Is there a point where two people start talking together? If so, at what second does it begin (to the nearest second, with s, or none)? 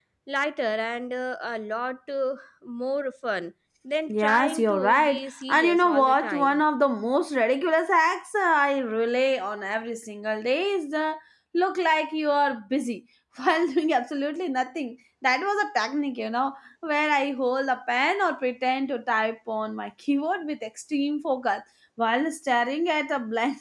4 s